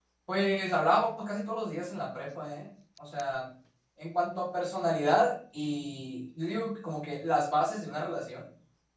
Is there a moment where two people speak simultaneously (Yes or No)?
No